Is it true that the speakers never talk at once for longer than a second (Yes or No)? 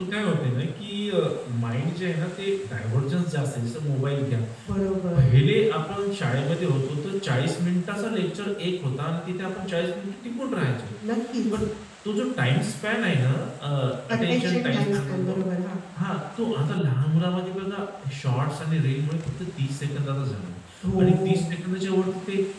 No